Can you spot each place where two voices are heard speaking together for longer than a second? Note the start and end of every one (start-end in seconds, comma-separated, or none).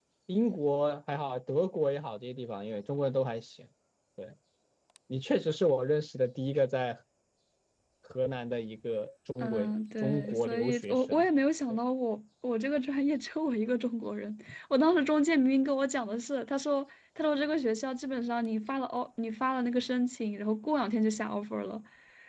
10.0-11.3